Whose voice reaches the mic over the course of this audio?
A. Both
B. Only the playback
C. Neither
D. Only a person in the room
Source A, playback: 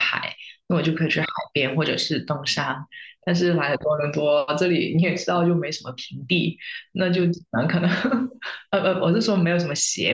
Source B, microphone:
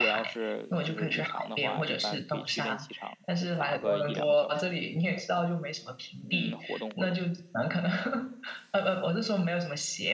A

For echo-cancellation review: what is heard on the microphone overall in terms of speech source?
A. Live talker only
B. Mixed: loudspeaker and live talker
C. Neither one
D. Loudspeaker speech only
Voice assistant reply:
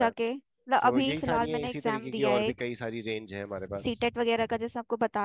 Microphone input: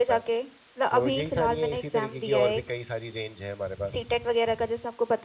D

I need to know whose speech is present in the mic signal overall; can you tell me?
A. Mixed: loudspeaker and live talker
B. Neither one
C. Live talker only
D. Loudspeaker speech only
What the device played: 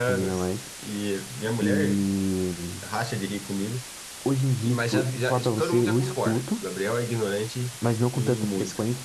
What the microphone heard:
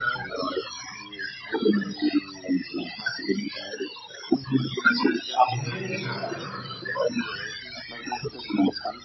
A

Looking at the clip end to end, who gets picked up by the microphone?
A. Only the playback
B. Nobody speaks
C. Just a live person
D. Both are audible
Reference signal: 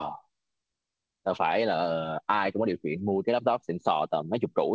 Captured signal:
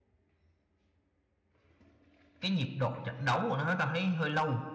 C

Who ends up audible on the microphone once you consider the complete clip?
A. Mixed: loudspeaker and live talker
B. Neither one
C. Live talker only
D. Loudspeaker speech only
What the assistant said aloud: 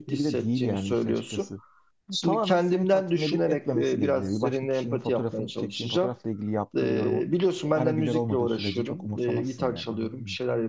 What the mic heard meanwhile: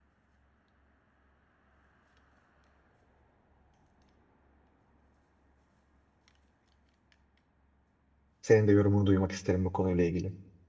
C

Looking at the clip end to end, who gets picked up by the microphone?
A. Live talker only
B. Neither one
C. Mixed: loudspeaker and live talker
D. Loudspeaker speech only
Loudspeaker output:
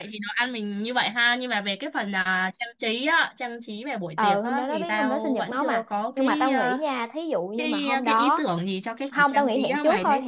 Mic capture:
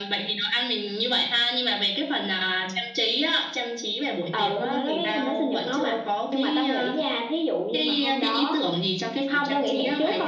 D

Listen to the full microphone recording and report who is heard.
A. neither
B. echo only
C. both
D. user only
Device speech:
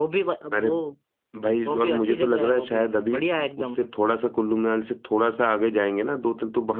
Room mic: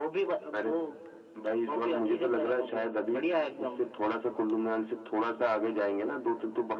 B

